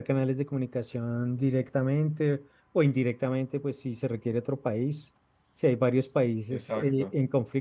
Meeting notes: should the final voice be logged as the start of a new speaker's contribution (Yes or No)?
No